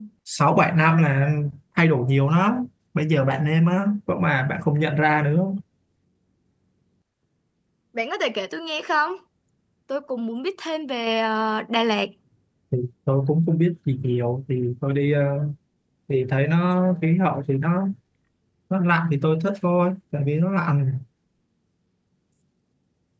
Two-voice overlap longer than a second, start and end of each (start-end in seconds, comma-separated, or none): none